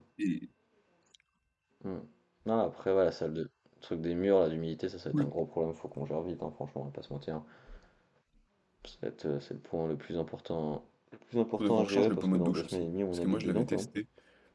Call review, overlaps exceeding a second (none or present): present